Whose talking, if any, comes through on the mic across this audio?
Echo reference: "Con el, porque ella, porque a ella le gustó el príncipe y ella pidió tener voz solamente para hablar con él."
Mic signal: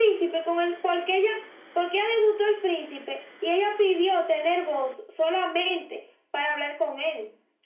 echo only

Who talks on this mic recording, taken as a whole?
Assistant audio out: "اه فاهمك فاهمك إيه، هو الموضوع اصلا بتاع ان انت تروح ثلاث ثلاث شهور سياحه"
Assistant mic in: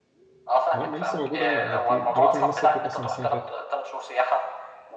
both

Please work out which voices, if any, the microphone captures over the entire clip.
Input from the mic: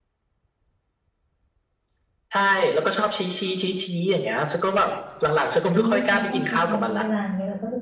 both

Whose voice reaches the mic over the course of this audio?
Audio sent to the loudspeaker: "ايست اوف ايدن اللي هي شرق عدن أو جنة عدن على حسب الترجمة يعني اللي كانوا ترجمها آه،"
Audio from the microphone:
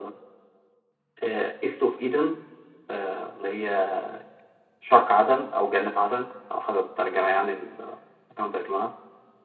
echo only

